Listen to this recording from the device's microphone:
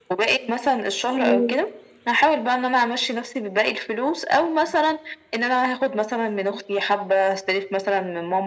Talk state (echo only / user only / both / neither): both